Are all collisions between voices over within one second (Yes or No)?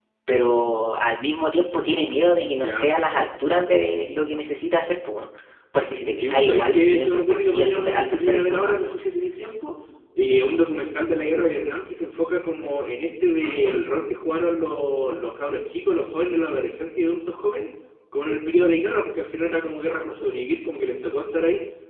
No